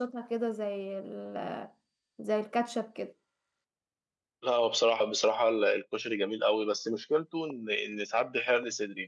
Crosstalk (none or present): none